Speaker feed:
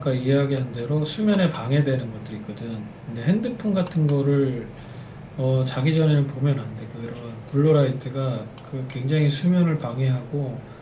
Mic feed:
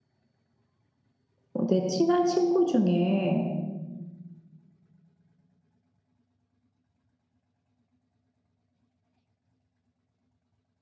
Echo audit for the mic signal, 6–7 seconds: neither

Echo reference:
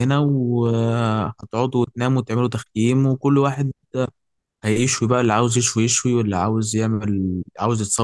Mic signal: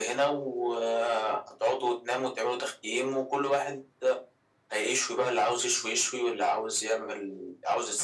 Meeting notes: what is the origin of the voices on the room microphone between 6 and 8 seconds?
echo only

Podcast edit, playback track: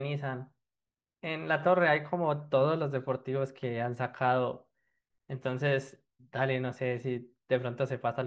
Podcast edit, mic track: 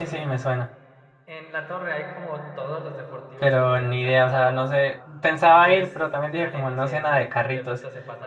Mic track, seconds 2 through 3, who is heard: echo only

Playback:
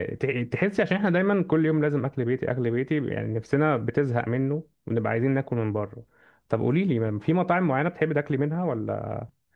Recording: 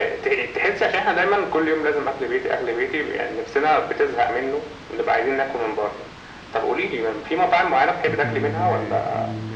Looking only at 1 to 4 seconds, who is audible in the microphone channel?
echo only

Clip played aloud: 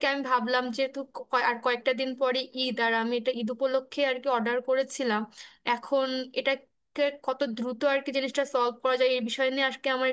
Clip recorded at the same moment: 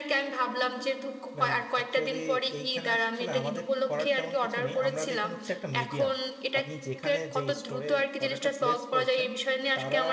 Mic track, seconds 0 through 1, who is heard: echo only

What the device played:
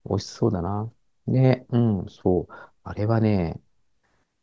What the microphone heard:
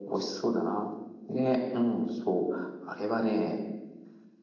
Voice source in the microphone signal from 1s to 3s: echo only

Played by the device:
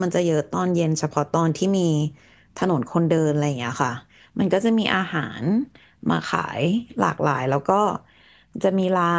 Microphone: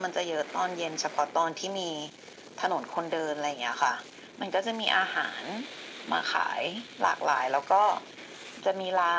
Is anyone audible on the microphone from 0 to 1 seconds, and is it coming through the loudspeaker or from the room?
echo only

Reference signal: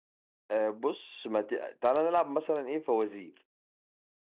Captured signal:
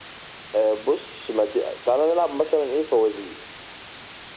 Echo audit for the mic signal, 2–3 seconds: echo only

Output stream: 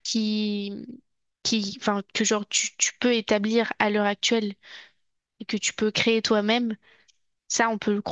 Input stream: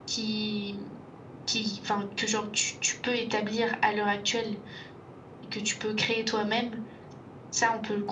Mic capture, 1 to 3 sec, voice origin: echo only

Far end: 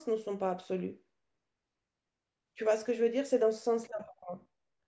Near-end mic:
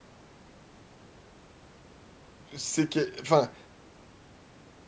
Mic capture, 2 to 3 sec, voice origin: user only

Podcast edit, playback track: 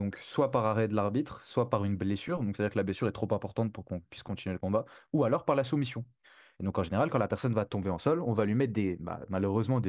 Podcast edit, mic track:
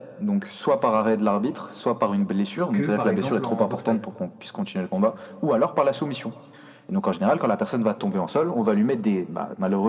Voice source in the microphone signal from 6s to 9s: echo only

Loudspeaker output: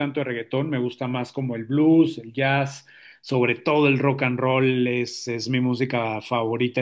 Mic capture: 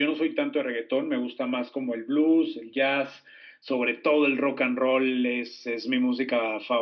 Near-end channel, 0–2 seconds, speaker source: echo only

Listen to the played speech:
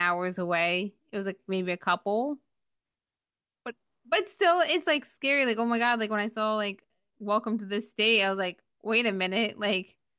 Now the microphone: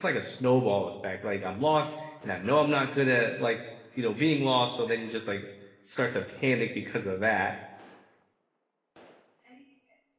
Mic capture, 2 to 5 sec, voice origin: user only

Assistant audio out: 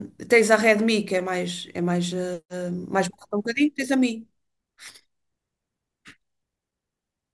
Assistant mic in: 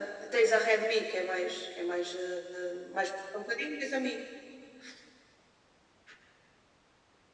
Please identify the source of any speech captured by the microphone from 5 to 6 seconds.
neither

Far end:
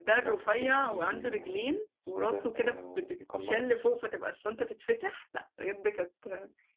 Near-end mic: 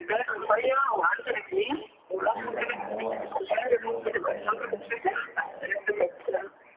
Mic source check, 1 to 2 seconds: echo only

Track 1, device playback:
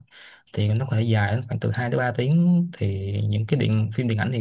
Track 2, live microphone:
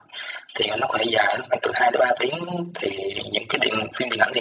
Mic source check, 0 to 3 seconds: echo only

